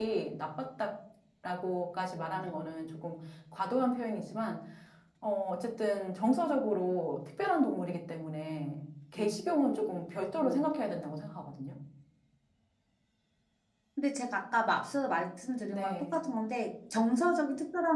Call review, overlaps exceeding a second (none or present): none